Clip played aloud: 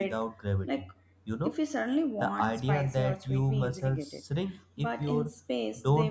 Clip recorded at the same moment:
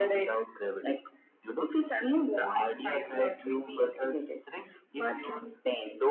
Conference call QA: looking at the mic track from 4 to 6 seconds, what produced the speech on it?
echo only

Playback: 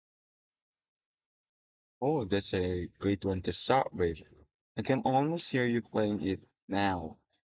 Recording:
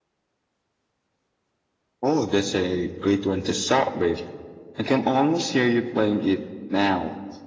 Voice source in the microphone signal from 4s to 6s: echo only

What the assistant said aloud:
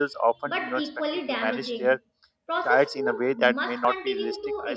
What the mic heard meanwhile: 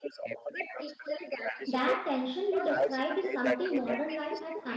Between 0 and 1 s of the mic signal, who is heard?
echo only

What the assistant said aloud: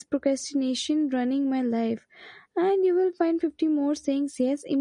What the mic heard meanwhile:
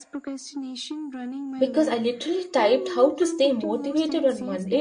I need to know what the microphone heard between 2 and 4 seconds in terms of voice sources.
both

